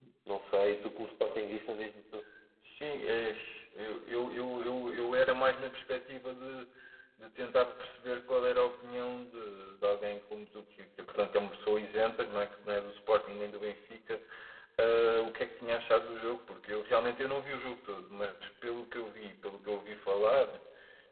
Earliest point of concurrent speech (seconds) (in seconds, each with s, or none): none